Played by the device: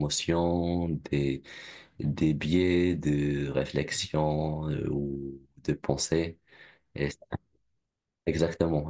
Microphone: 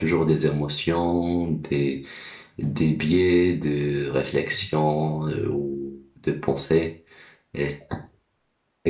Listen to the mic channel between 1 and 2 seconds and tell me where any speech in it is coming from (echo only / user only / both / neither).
echo only